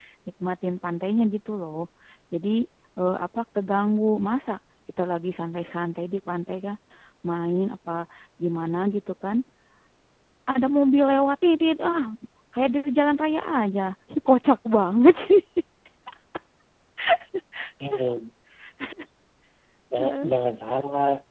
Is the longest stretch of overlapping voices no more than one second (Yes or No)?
Yes